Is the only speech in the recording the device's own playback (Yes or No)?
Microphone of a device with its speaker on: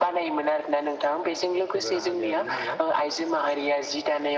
No